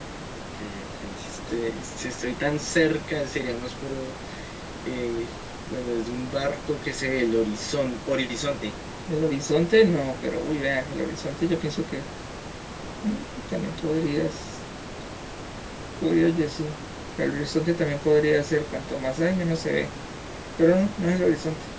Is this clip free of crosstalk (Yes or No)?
Yes